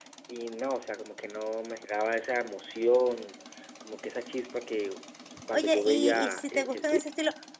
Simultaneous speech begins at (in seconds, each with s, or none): 5.5 s